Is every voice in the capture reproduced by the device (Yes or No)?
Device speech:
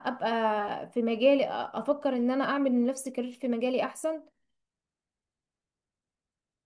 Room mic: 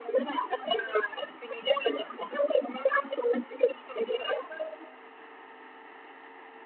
Yes